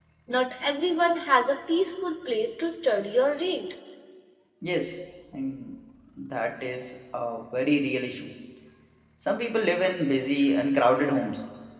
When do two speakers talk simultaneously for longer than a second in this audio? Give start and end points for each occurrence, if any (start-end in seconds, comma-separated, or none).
none